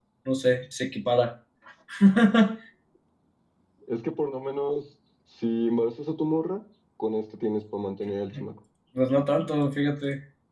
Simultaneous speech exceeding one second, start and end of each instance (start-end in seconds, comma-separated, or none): none